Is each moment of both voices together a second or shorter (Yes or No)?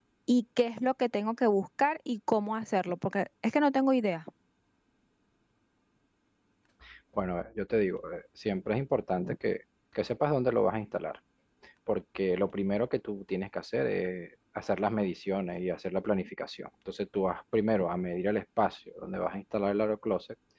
Yes